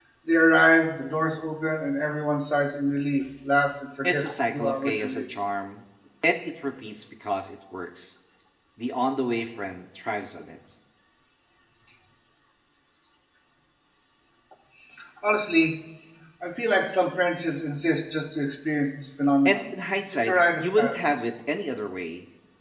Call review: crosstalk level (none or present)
present